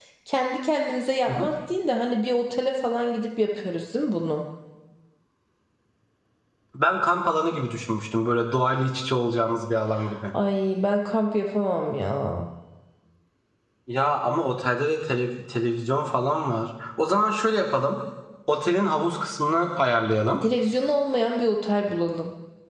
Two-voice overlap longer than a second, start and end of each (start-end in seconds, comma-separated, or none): none